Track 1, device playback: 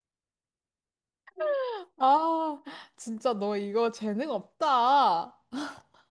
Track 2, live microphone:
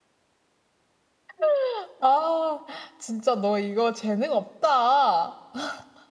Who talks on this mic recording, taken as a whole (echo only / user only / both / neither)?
echo only